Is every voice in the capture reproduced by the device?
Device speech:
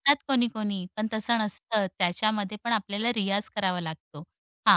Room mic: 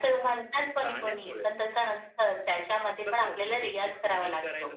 No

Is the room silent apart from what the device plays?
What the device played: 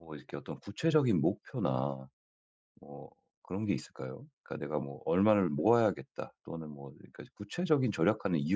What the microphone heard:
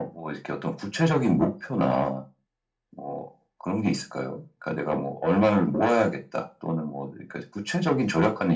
Yes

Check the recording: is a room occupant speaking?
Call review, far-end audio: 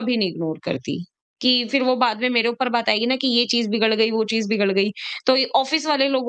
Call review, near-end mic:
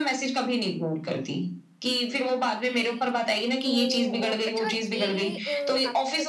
Yes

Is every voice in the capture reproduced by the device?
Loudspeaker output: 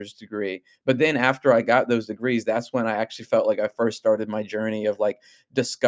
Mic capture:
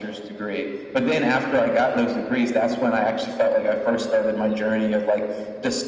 Yes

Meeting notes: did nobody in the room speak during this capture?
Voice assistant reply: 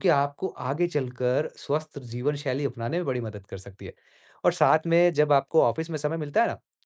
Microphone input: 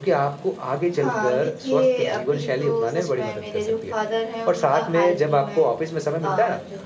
No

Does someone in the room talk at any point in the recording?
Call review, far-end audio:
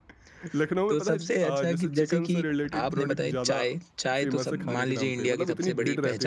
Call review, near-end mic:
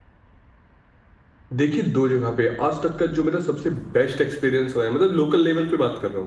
Yes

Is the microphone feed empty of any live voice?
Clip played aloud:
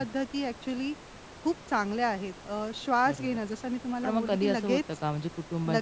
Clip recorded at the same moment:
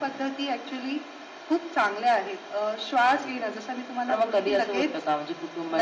Yes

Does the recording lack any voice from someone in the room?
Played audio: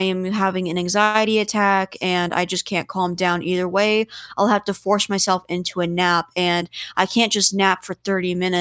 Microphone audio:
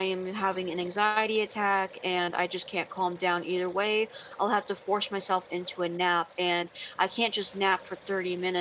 Yes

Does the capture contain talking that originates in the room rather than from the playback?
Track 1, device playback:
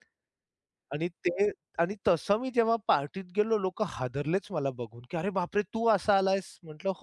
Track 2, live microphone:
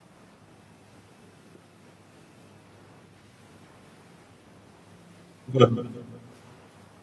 Yes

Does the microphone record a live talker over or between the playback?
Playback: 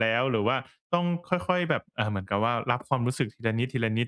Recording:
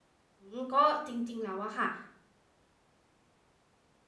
Yes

